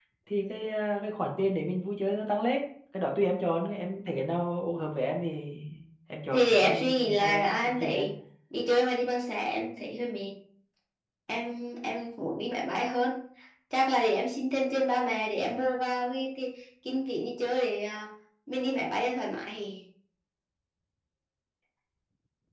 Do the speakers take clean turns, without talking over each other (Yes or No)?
No